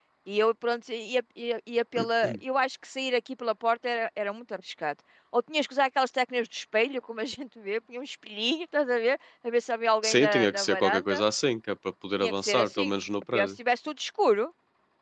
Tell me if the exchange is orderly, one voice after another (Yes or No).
No